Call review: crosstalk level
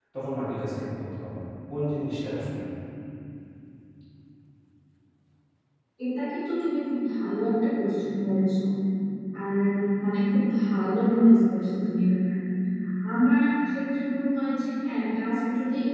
none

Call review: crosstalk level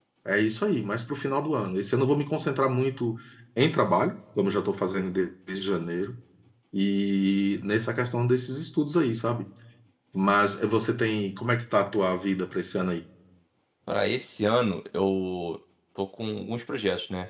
none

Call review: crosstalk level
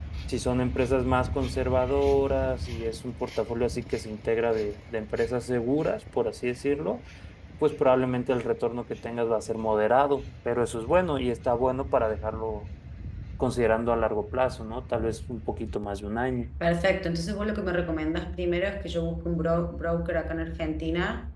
none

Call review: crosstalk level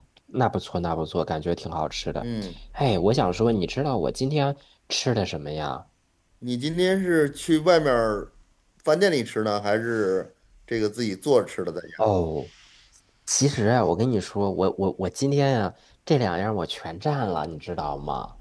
none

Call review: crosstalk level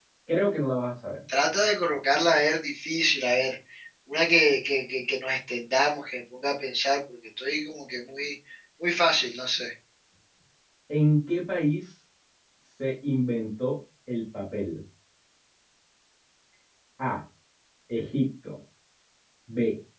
none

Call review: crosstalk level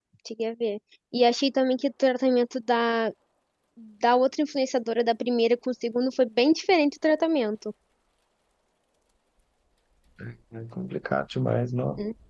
none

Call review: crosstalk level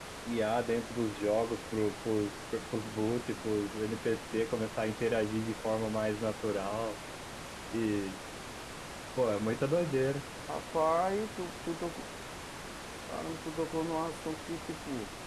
none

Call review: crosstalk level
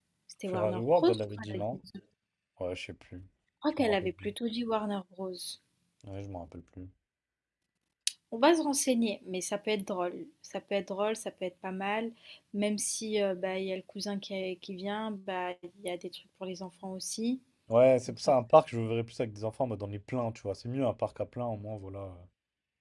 present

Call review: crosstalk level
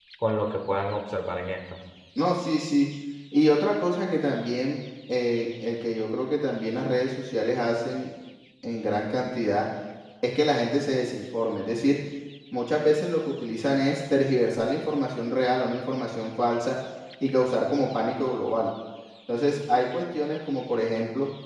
none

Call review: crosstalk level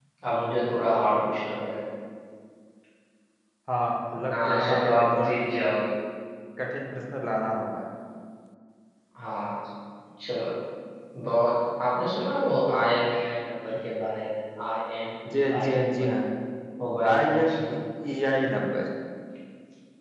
present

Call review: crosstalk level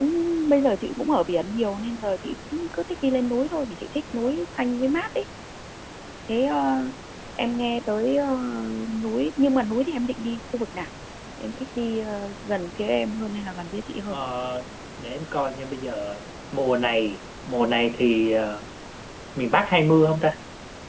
none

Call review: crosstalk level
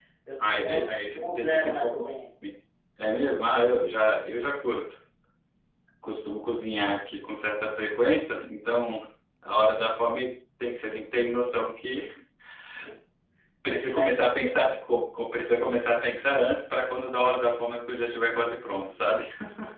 present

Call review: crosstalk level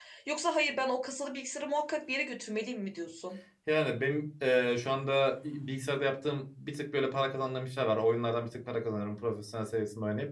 none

